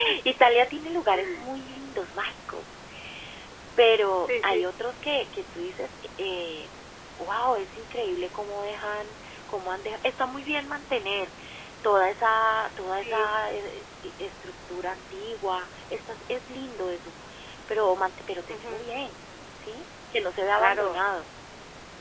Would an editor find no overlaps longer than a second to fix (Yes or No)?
Yes